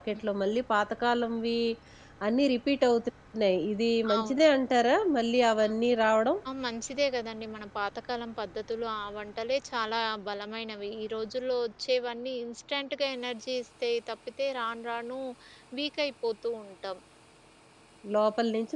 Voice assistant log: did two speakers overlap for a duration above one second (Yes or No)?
No